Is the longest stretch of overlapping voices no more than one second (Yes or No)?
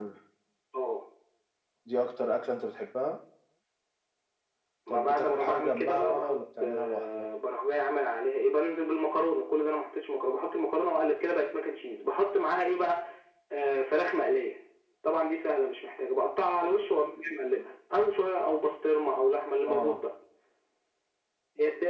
No